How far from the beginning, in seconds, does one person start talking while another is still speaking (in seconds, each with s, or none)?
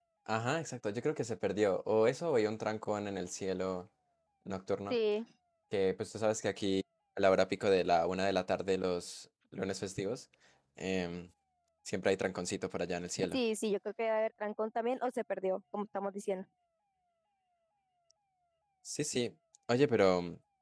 none